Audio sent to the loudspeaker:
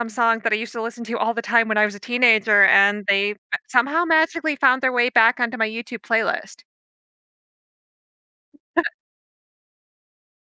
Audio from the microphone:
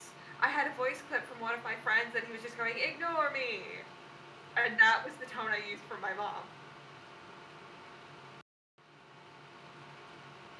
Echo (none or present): none